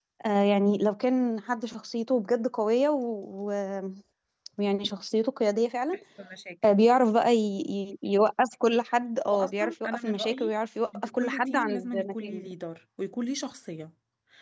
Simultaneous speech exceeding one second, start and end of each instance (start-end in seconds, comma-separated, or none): 9.3-10.5, 10.9-12.5